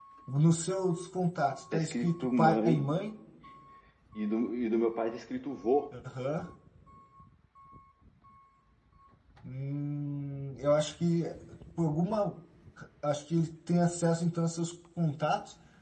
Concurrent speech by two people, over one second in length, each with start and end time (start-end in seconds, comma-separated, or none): 1.7-2.9